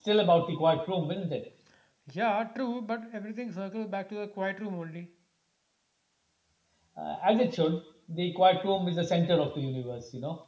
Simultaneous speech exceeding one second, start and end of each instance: none

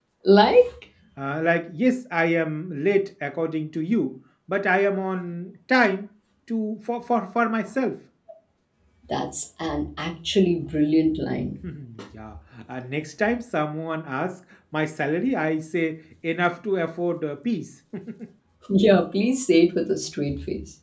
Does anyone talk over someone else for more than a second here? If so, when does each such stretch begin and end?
none

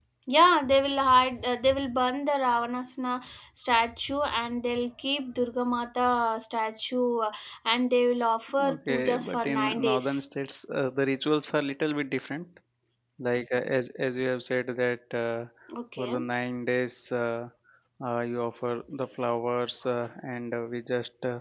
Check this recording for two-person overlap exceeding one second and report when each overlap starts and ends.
8.7-10.2

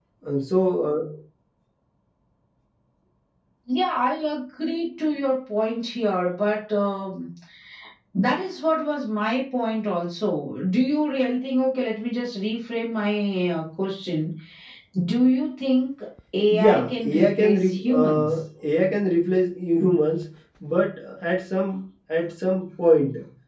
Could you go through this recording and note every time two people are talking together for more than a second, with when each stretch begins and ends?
16.5-18.3

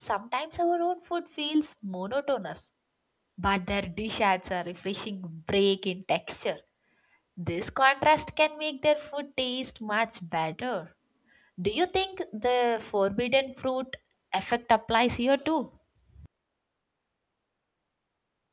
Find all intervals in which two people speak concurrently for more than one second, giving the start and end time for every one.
none

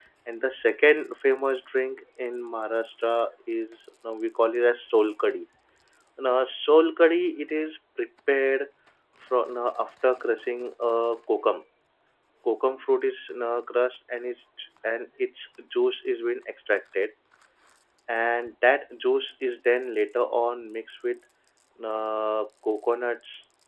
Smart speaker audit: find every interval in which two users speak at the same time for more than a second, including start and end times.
none

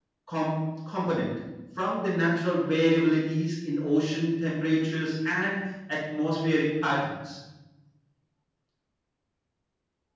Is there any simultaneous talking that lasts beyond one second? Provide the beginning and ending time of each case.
none

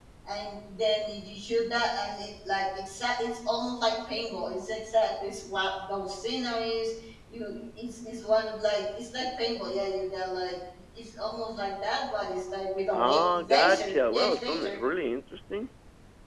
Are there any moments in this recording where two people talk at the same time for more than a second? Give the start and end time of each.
12.9-14.8

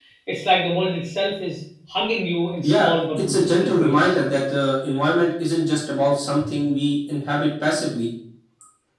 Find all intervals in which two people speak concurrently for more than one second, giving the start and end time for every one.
2.6-4.2

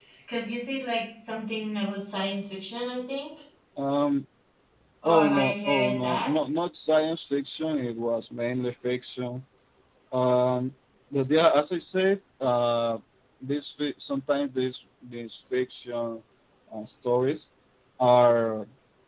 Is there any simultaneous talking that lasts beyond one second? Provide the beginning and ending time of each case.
5.0-6.3

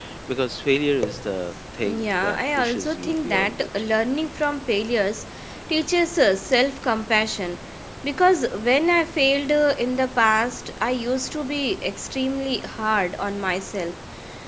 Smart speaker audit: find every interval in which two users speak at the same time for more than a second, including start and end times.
1.8-3.7

